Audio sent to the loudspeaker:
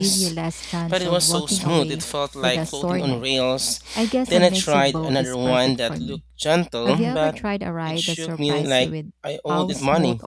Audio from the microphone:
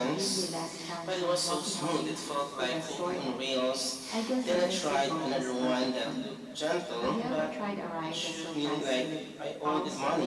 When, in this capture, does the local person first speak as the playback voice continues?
none

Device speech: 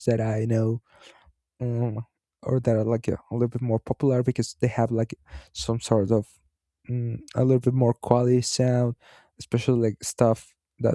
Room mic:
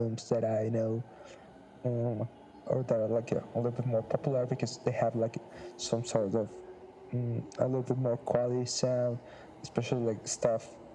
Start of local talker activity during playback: none

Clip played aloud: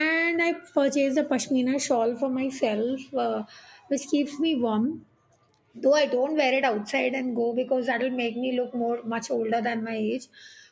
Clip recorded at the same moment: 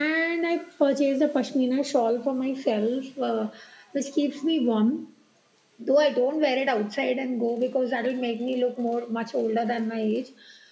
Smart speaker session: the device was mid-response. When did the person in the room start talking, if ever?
none

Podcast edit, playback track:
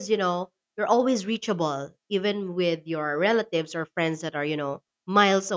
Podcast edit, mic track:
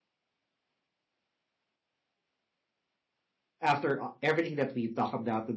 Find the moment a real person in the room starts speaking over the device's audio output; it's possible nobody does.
3.6 s

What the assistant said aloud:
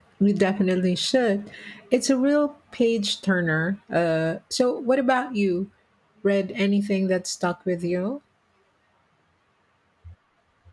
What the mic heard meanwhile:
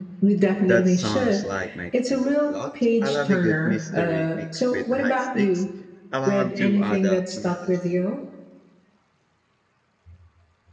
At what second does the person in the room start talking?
0.7 s

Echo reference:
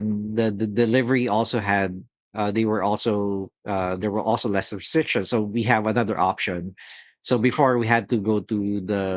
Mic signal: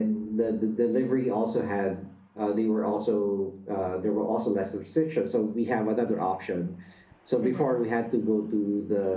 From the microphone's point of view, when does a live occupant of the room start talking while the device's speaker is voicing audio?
7.4 s

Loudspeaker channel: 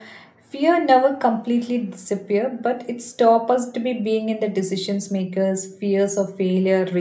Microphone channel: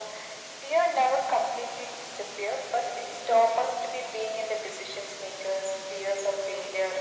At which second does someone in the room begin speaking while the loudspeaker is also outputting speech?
none

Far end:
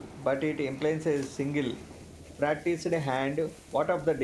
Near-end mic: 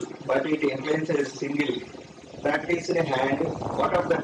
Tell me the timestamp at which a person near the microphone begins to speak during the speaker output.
none

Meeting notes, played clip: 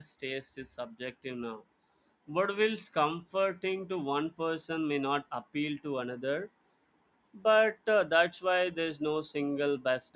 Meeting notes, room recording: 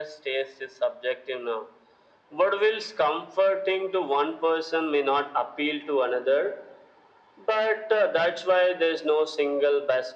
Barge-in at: none

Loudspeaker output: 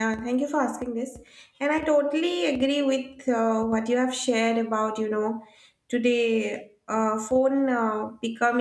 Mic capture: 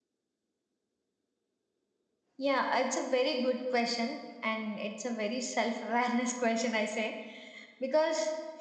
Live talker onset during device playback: 2.4 s

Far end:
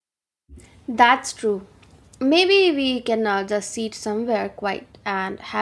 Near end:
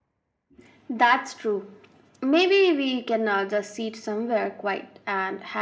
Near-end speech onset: none

